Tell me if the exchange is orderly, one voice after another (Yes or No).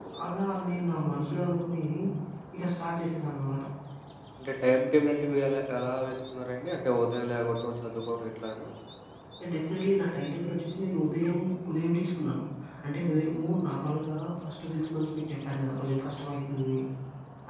Yes